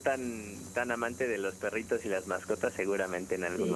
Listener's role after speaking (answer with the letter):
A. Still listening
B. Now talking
B